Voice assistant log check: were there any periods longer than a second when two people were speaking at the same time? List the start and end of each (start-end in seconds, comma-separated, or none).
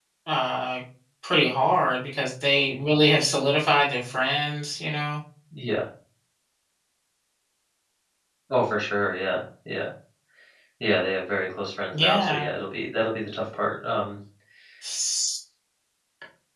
none